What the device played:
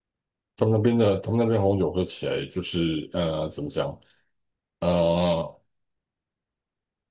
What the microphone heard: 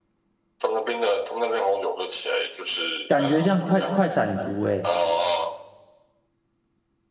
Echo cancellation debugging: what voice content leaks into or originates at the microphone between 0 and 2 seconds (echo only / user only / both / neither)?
echo only